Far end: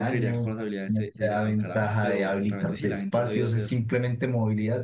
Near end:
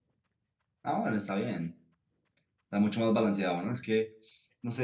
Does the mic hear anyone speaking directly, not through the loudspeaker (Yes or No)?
Yes